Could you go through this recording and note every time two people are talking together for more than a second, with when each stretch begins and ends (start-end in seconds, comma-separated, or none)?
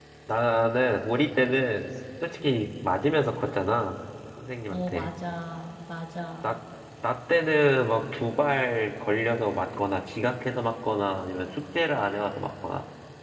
none